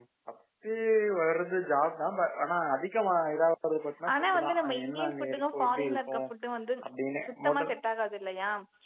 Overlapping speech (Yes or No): Yes